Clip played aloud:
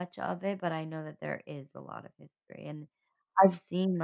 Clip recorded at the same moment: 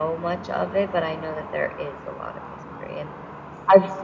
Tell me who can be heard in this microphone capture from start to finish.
echo only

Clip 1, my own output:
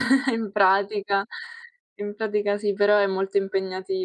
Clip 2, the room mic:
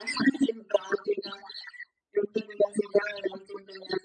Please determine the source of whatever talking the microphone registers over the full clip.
echo only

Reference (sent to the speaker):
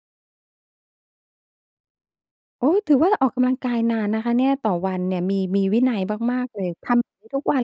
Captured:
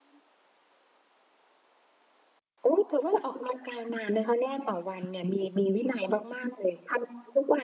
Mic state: echo only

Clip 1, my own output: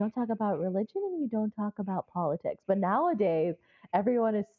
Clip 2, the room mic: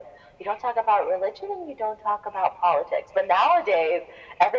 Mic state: echo only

